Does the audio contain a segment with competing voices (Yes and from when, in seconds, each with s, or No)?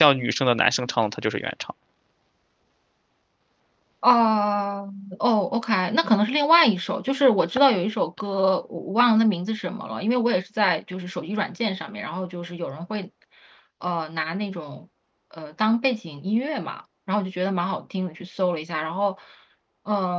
No